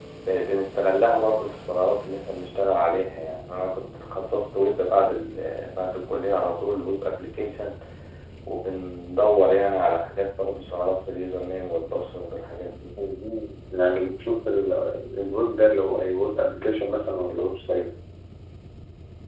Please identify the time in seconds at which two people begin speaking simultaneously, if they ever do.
none

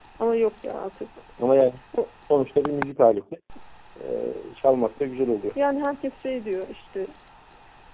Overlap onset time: none

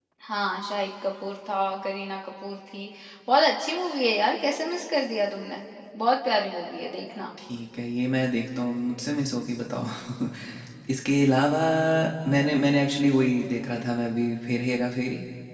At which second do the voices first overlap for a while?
none

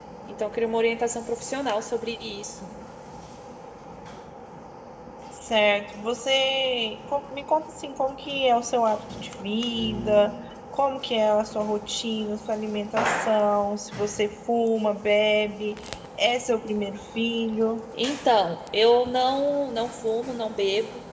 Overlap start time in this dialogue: none

